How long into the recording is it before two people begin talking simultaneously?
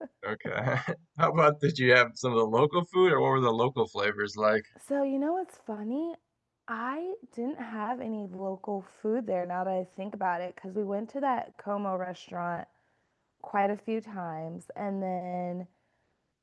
none

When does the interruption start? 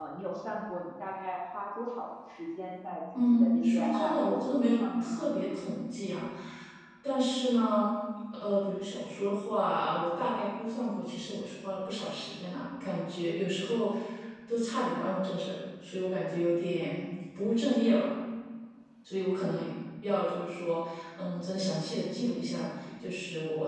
3.1 s

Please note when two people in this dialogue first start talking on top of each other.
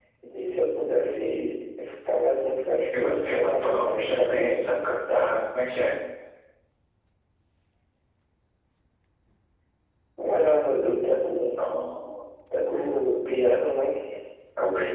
2.9 s

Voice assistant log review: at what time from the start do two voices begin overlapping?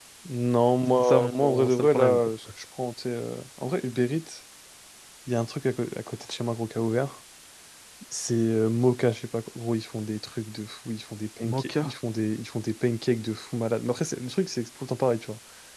1.0 s

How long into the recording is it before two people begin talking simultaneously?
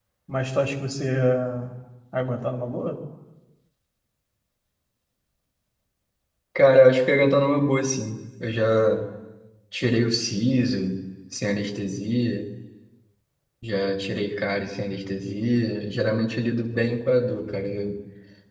none

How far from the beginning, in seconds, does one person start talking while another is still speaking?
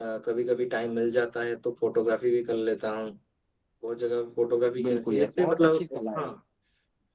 4.7 s

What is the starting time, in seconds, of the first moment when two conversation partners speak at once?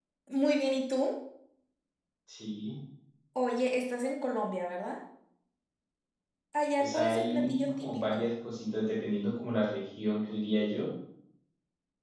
6.8 s

